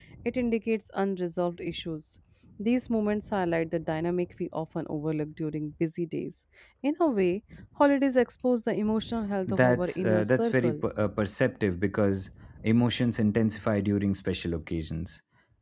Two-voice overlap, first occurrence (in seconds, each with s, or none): 9.5 s